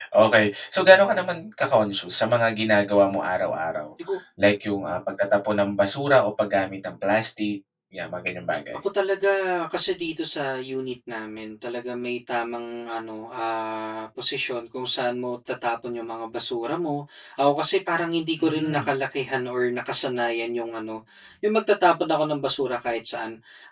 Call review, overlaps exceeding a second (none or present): none